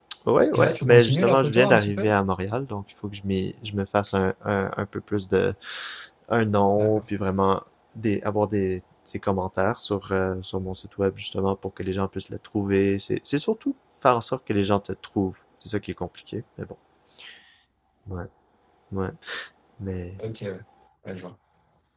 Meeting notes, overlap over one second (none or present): present